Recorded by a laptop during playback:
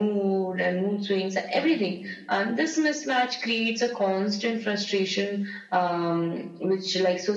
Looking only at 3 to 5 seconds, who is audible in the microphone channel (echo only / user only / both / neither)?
echo only